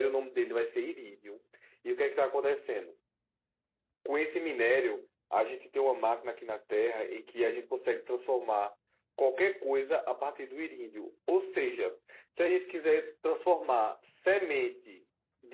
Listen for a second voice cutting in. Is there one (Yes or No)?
No